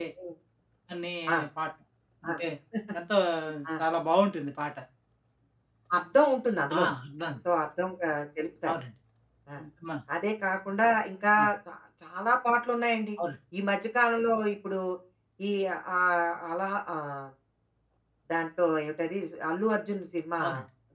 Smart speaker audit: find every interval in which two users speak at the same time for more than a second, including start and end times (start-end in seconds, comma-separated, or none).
none